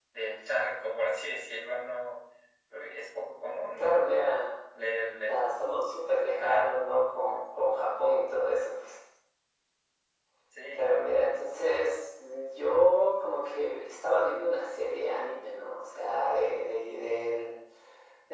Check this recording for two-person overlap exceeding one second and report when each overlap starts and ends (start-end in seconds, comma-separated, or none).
none